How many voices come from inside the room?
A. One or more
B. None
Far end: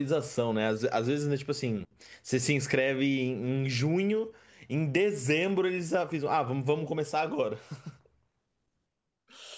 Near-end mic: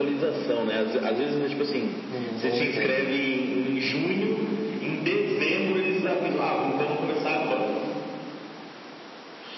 A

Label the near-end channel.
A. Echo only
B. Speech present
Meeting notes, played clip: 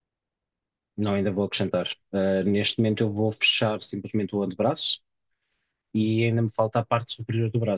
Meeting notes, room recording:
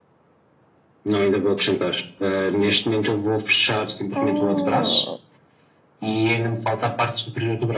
B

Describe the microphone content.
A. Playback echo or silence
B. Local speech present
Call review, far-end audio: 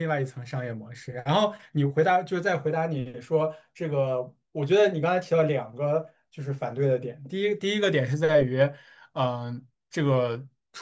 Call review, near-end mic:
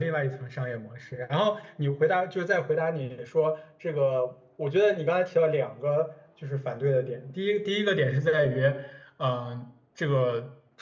A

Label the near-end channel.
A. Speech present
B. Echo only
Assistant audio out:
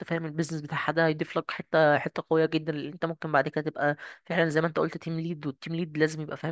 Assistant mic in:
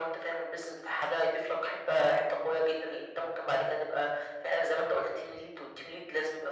B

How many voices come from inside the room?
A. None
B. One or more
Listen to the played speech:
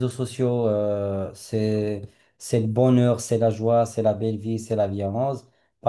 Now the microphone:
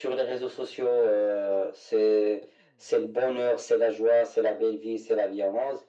A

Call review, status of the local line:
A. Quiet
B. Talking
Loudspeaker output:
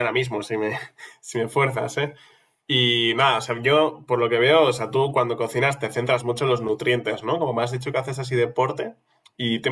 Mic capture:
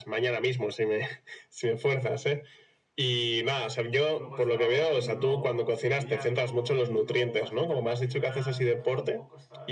B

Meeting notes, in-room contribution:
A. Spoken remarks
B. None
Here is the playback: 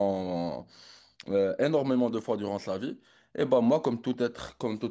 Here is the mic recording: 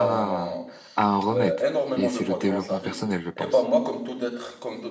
A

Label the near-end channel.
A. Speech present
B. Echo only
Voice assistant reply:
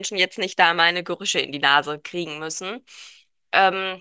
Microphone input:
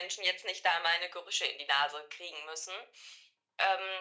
B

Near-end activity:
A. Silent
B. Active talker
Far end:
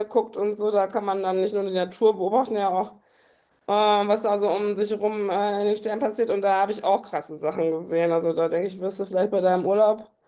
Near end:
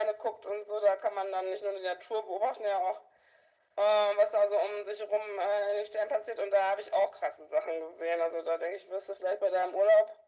A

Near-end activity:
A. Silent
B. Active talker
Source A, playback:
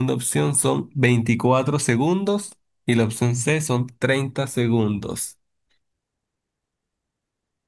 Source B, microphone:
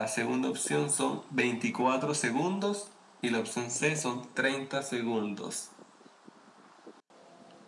A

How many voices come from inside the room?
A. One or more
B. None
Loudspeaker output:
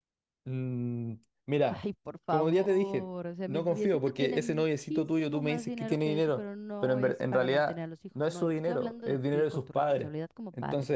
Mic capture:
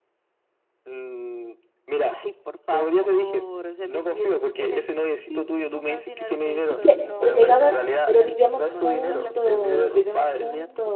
A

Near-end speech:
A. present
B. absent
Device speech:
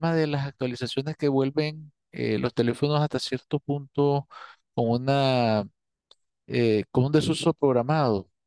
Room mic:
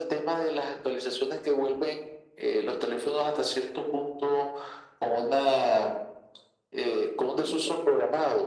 B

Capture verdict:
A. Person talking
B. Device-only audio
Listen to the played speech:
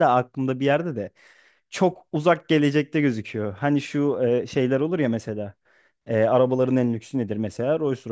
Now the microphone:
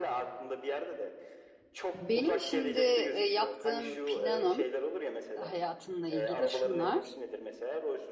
A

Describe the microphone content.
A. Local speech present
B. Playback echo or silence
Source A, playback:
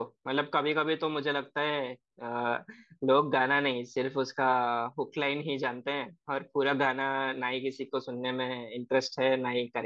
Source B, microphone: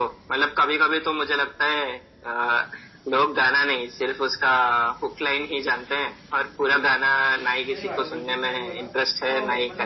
A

